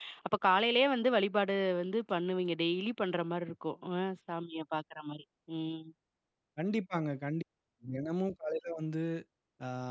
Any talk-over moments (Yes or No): No